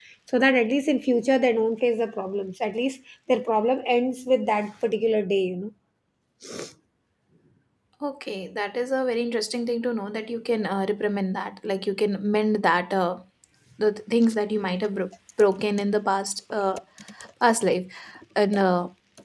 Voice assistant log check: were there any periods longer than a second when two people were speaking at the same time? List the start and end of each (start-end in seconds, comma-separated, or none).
none